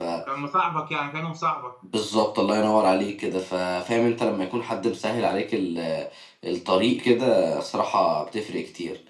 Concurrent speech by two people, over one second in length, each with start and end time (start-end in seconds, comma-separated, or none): none